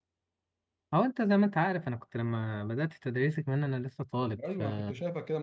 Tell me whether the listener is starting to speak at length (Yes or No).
Yes